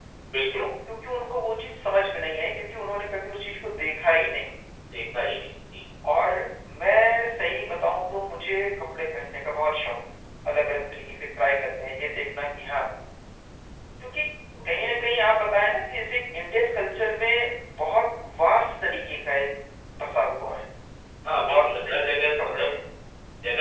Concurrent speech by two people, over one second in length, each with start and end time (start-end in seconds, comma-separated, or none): 21.4-22.7